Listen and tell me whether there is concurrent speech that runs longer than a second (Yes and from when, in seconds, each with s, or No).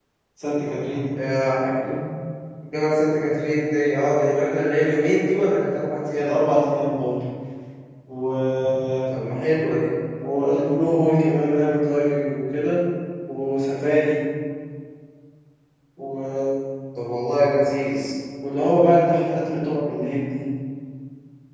No